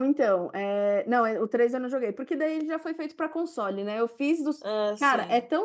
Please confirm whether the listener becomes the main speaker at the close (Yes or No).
No